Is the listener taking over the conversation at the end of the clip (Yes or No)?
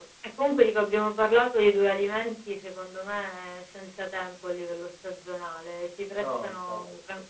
No